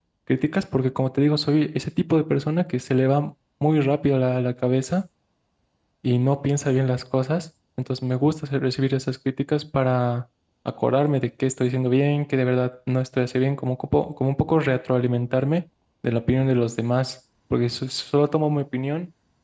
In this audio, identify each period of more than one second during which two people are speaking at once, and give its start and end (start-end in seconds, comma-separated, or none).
none